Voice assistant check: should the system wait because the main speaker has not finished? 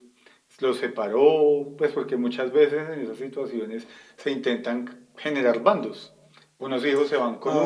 Yes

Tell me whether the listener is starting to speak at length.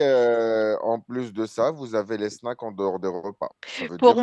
Yes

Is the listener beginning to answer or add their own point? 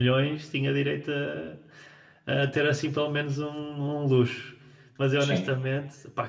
No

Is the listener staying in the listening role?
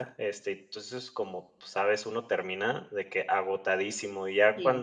Yes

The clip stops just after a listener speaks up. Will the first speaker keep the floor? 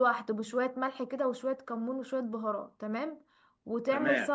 Yes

